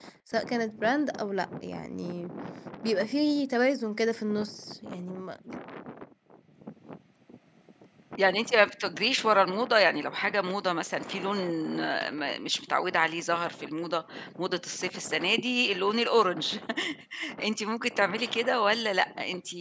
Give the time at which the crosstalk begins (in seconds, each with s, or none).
none